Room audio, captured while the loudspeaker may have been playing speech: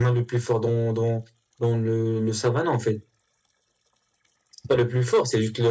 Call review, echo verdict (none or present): none